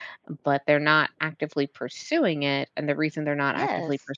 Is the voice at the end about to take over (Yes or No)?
No